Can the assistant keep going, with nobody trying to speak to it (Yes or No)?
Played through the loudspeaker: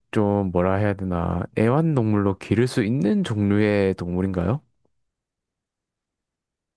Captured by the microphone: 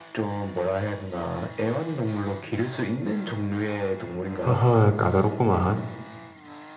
No